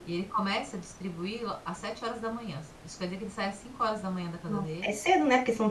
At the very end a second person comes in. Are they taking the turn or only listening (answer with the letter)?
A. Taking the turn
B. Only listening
A